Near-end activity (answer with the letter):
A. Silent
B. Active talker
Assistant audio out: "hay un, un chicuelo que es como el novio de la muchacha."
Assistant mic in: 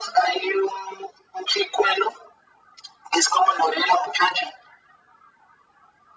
A